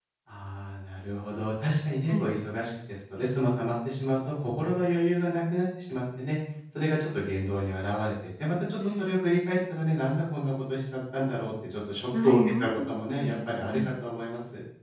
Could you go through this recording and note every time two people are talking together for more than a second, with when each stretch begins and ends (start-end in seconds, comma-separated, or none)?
12.2-13.9